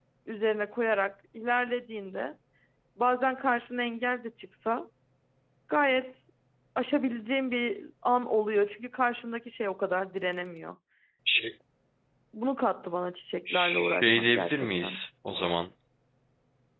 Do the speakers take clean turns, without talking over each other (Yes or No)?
No